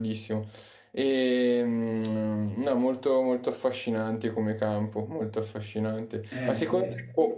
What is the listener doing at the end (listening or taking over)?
listening